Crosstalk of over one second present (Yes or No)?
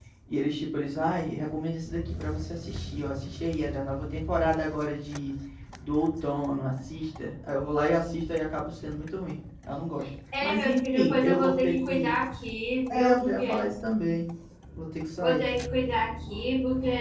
Yes